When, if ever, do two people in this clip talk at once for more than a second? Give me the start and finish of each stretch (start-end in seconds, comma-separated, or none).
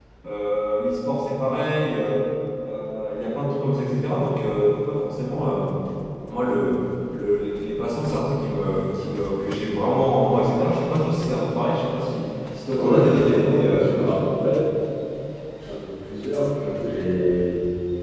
12.8-14.3